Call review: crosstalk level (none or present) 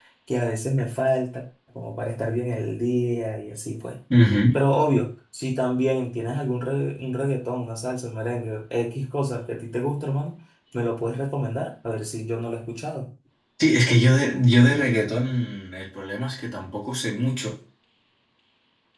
none